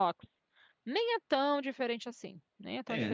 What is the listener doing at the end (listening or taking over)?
taking over